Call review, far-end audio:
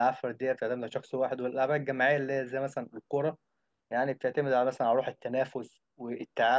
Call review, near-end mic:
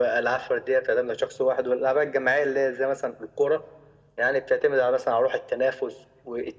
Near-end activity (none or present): none